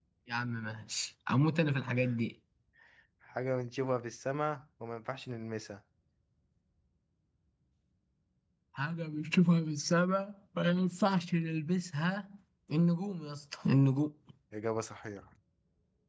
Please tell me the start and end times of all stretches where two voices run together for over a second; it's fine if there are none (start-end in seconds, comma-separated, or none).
none